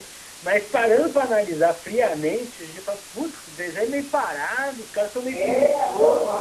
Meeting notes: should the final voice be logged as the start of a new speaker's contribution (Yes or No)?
Yes